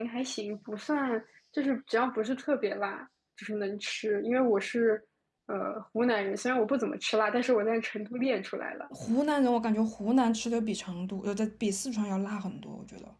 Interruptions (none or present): none